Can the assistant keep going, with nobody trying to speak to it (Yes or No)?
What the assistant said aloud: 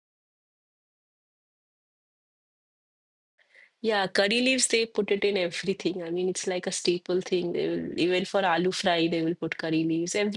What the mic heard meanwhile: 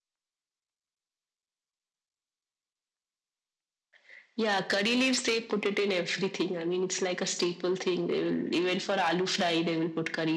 Yes